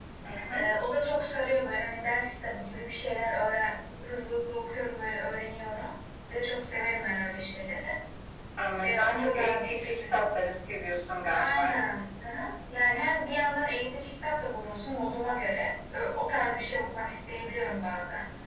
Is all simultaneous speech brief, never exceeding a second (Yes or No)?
No